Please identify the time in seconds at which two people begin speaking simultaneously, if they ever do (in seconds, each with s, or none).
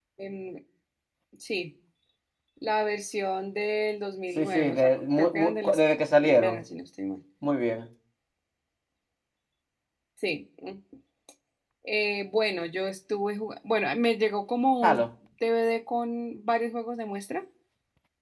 4.4 s